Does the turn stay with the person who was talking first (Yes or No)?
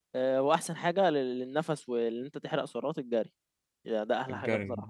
Yes